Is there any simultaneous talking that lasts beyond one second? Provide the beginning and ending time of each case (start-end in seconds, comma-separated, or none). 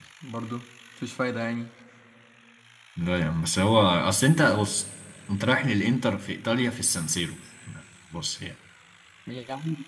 none